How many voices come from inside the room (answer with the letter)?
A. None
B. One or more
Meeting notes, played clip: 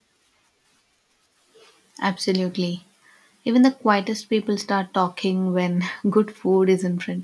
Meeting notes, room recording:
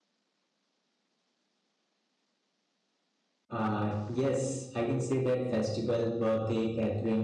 B